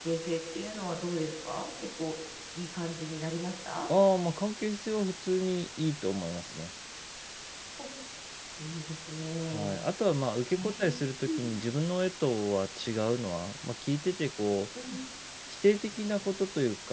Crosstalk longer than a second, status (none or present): none